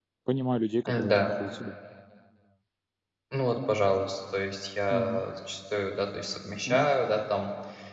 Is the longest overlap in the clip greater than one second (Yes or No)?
No